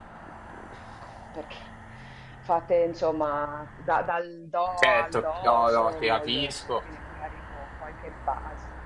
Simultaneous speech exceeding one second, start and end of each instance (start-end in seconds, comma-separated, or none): 4.8-6.6